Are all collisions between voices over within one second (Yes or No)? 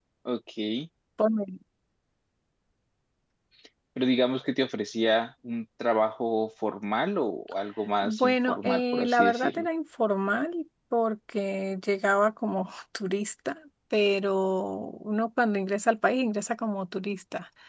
No